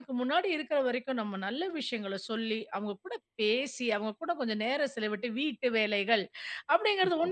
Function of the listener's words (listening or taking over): listening